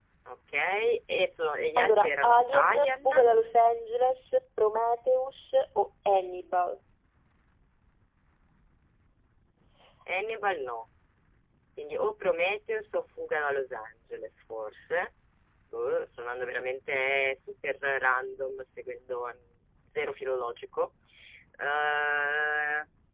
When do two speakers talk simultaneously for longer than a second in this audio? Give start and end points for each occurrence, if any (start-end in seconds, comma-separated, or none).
1.8-3.1